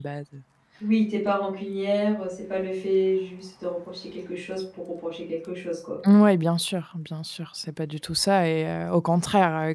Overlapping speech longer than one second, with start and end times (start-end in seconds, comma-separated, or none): none